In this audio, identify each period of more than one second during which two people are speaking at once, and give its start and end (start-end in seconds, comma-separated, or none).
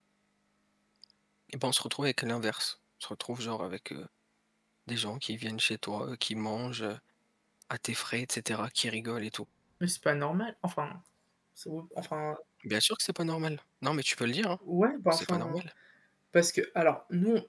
none